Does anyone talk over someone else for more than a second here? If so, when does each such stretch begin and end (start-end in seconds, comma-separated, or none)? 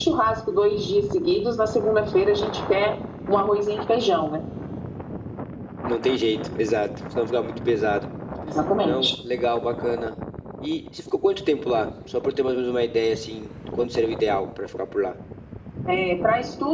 none